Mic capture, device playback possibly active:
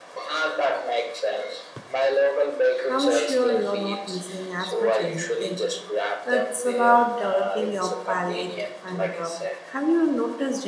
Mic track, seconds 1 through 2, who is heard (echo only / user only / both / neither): echo only